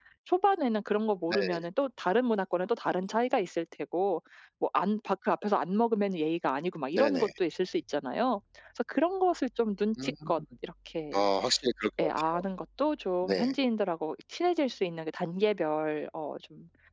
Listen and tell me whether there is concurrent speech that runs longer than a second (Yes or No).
No